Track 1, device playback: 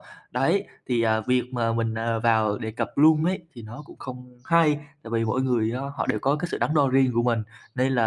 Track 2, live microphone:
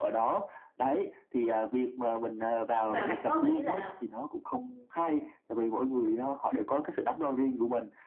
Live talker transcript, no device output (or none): nhưng mà bạn có nghĩ là,